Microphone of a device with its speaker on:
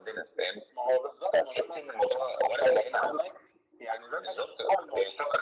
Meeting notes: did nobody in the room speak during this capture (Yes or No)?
Yes